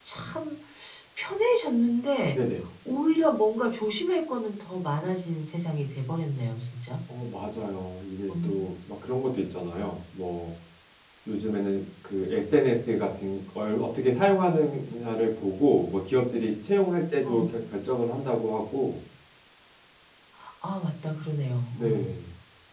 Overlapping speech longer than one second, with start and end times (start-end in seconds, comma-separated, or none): none